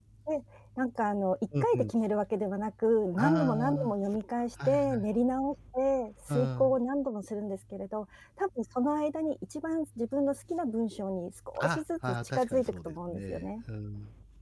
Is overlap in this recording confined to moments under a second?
No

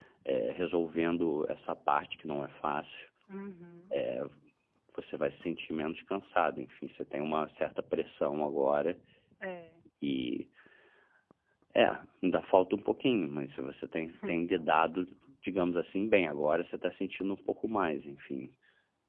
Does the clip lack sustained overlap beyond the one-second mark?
Yes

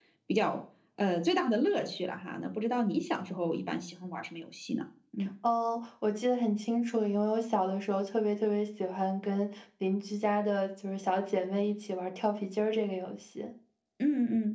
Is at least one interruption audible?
No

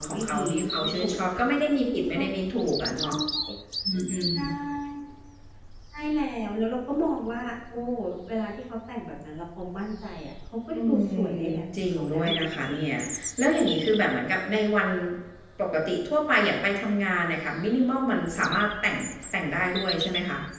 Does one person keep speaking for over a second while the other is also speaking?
Yes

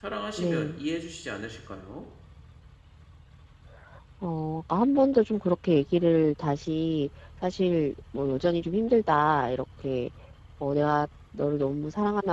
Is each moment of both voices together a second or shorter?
Yes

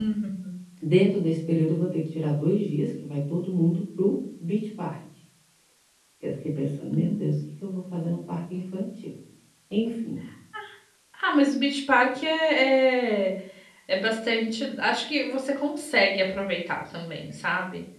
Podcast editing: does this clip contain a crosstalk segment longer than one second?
No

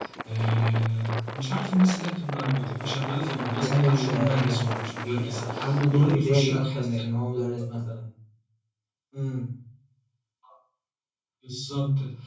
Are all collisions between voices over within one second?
No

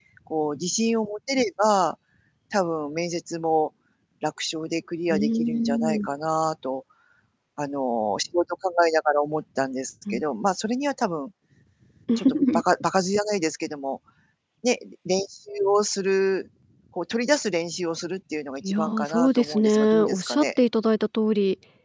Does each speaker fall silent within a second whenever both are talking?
No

